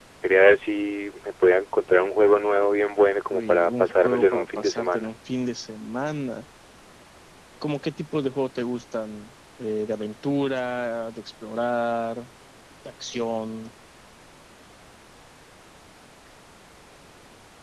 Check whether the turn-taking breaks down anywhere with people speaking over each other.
Yes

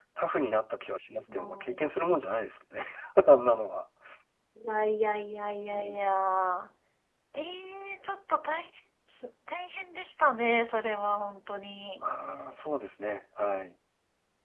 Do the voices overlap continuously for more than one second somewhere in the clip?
No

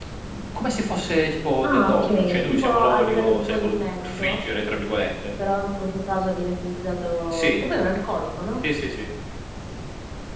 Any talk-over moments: Yes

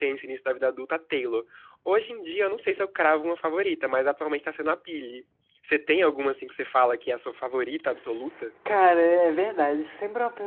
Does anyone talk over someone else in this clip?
No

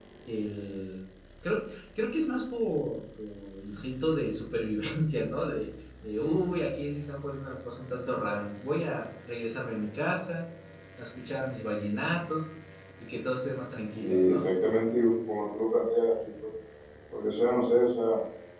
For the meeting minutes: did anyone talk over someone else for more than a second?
No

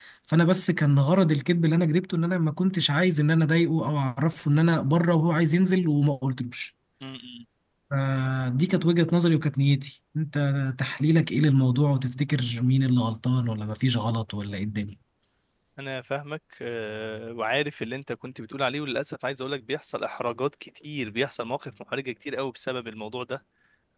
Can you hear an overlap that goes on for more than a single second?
No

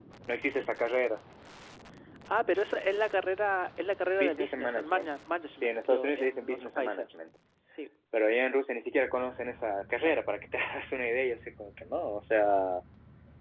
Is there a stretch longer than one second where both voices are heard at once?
Yes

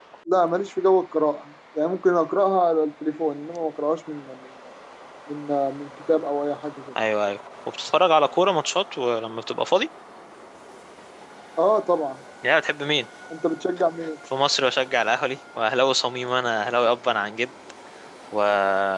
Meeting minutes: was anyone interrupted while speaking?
No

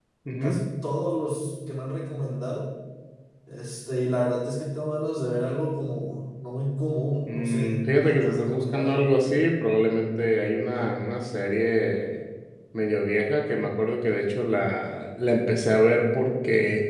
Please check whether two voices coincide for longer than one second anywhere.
Yes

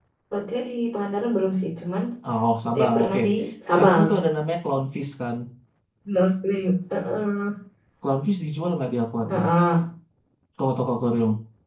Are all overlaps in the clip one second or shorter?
Yes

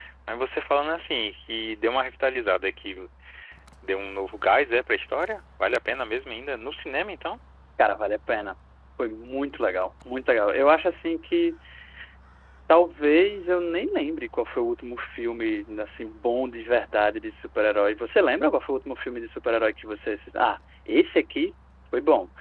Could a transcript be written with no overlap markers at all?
Yes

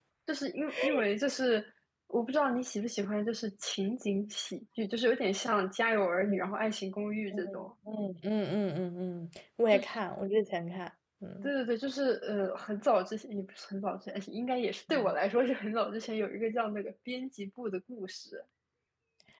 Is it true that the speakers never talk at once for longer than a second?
Yes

